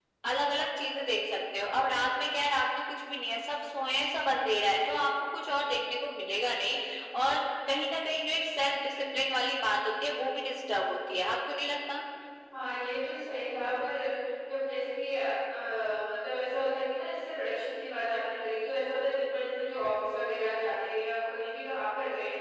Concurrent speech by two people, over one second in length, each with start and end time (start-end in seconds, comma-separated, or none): none